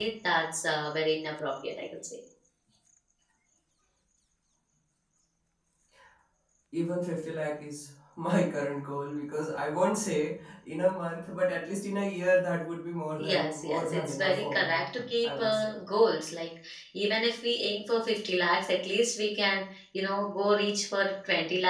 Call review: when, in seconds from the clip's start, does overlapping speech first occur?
13.2 s

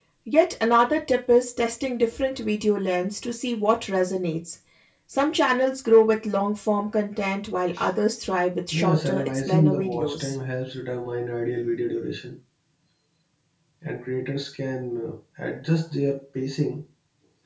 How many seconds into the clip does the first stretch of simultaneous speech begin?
8.7 s

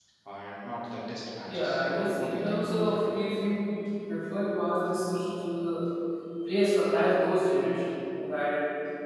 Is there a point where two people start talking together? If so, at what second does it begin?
1.5 s

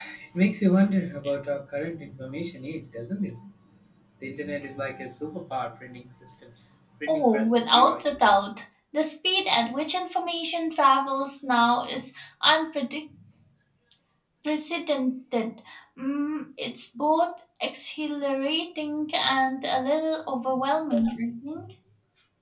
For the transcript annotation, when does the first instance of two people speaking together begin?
7.1 s

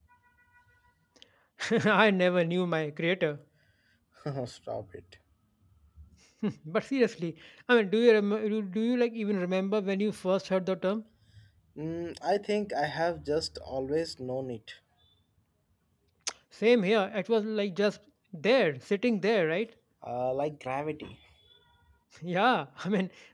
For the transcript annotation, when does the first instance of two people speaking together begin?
none

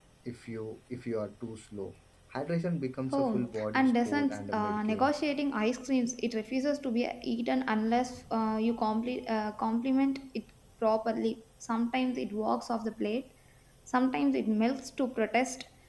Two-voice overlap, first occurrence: 3.1 s

